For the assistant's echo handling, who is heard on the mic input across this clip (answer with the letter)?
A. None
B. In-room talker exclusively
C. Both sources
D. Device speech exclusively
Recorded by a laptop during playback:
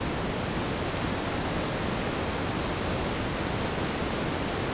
A